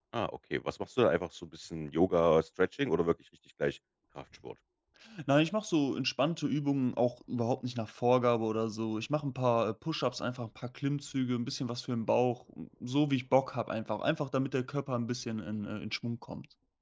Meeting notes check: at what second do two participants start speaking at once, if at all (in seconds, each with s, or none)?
none